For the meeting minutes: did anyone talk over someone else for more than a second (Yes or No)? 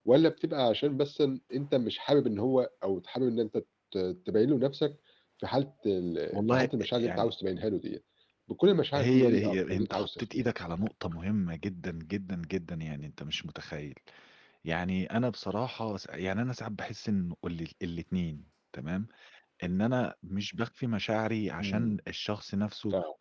Yes